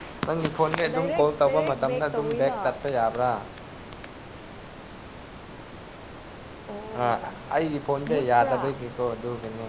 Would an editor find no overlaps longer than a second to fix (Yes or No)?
No